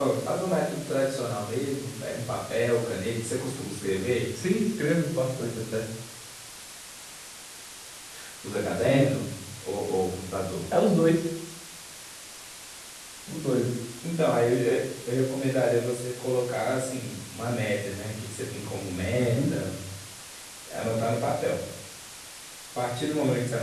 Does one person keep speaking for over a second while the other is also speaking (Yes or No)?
No